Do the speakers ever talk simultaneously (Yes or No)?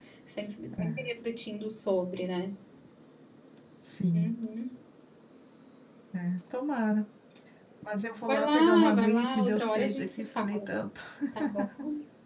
Yes